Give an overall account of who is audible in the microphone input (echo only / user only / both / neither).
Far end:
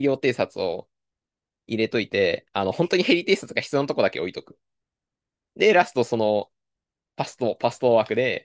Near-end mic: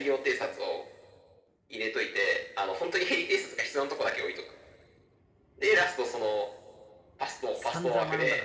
both